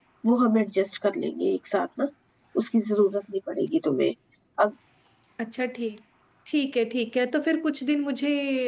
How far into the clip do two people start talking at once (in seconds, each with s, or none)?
none